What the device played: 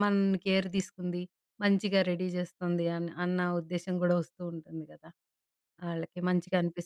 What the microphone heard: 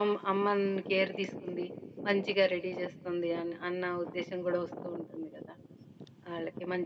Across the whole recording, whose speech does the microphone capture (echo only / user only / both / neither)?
echo only